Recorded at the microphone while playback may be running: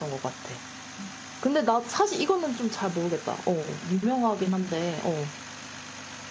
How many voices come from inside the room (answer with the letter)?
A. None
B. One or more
B